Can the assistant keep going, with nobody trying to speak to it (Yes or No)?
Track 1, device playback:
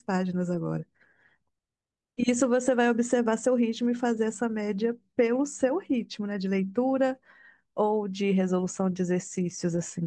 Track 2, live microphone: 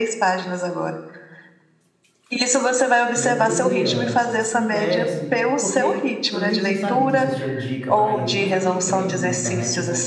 No